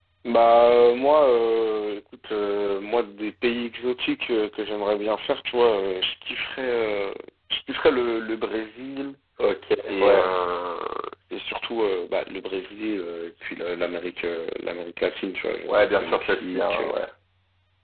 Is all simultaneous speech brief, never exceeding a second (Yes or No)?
No